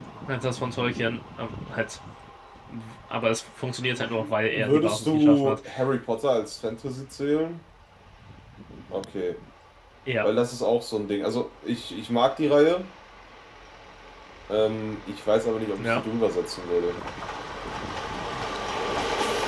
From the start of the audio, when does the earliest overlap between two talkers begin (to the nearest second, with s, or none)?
4 s